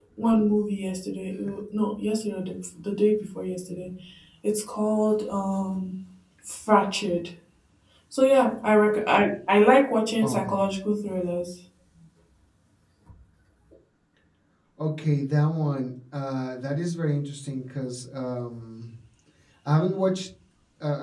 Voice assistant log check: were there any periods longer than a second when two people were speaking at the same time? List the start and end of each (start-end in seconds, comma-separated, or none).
none